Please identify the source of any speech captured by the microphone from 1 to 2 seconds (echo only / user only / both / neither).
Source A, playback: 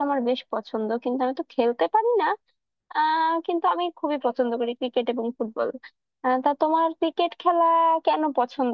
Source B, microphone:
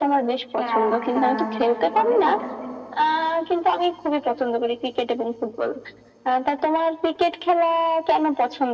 both